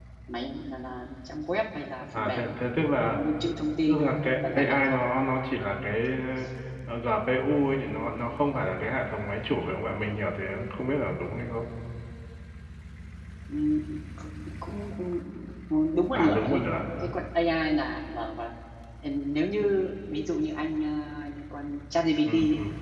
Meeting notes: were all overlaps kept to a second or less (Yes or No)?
No